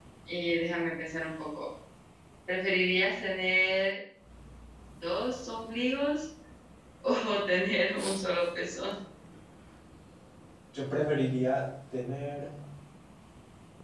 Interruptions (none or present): none